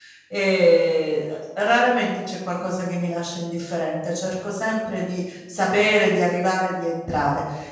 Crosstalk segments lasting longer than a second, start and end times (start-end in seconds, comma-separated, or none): none